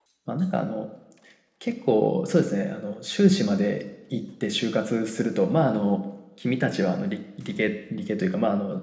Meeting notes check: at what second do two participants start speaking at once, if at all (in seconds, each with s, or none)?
none